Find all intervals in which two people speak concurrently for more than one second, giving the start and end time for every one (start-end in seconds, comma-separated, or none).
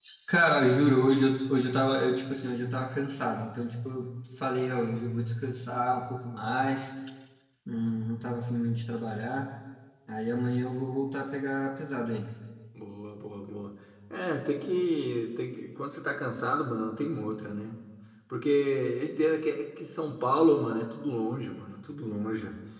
none